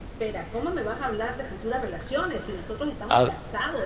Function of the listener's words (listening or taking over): listening